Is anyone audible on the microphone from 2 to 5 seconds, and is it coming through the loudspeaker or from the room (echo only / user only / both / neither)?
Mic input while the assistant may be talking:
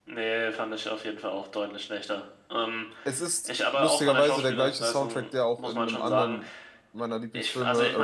both